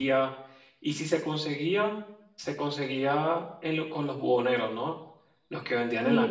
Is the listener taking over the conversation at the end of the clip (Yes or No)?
Yes